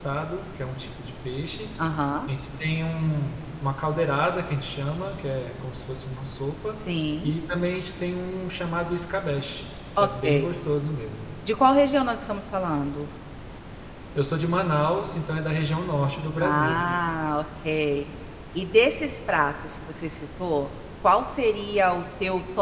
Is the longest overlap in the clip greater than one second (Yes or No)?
No